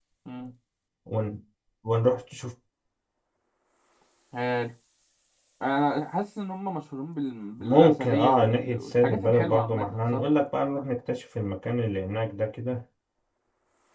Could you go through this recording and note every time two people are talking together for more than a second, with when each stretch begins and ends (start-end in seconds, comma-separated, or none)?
7.6-10.2